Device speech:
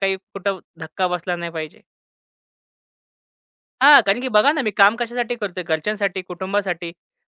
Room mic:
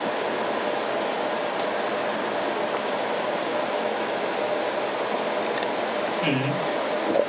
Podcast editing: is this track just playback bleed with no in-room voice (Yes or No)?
No